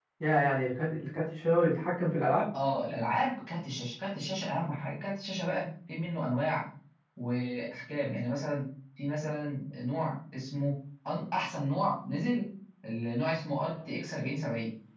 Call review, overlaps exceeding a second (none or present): none